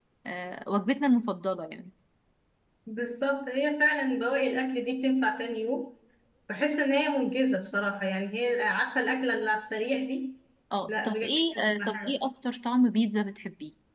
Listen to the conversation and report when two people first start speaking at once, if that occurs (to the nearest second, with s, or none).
11 s